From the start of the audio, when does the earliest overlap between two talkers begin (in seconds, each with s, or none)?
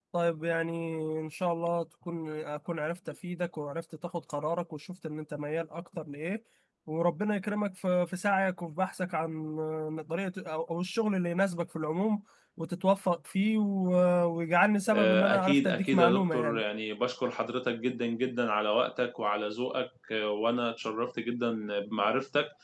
14.9 s